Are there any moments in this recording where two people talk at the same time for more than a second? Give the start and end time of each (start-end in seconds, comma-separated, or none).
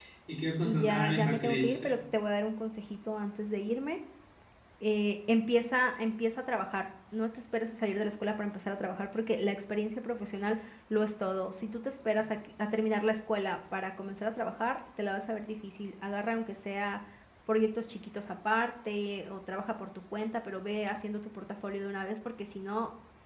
0.6-1.9